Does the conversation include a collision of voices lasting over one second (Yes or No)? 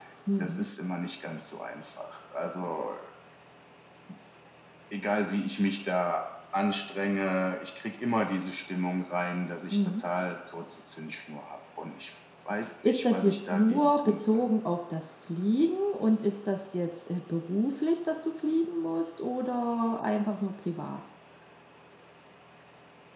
Yes